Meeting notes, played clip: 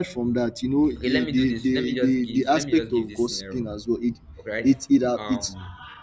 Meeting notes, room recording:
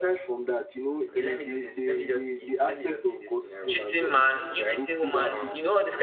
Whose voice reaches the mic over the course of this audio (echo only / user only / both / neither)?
both